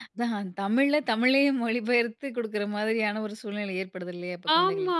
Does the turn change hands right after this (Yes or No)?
Yes